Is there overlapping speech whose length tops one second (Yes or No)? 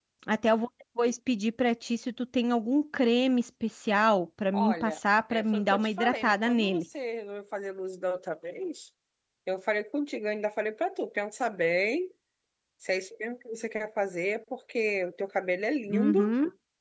Yes